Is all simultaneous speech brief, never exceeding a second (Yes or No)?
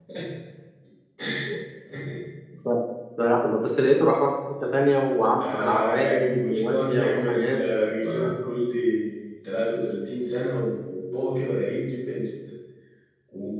No